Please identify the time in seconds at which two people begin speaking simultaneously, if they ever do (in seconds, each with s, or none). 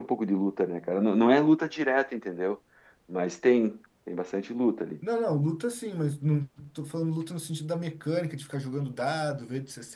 none